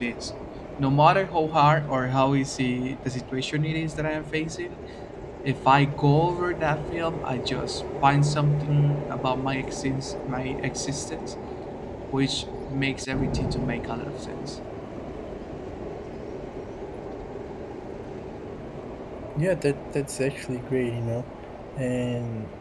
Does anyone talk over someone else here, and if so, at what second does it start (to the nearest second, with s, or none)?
none